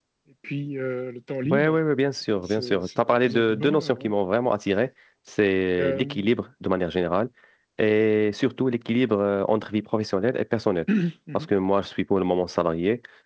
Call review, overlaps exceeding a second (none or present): present